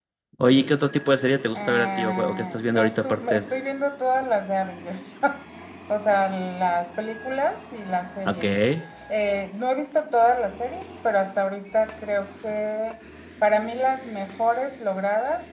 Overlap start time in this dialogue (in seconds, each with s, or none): 1.5 s